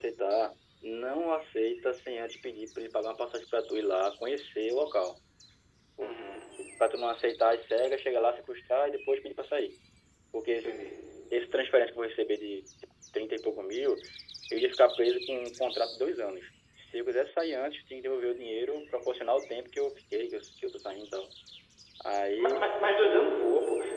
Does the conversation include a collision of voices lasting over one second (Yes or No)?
No